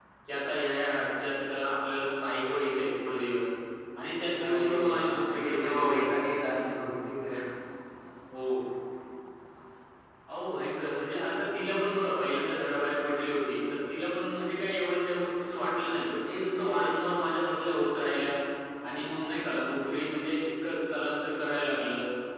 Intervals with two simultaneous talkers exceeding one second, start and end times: 4.5-6.1

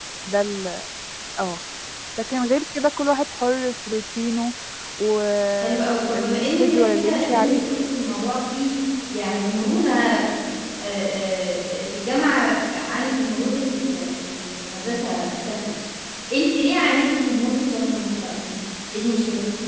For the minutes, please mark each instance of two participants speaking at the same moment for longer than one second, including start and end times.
5.6-7.6

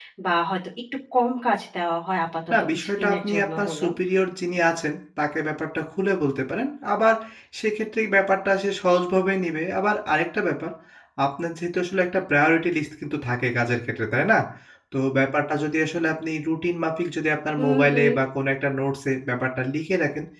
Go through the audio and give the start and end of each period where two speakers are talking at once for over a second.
2.5-3.9

